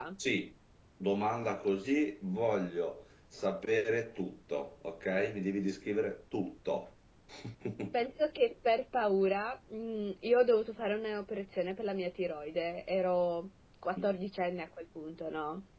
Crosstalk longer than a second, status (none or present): none